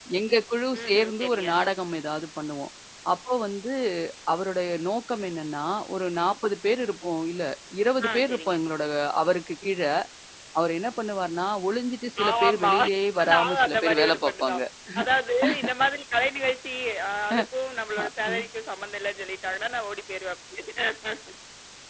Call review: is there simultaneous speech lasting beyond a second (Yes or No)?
Yes